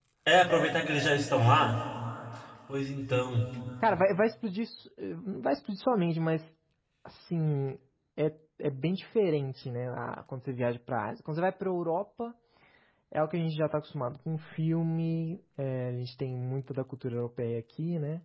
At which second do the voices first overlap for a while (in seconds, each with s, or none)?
none